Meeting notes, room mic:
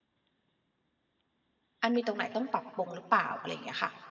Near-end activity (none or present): present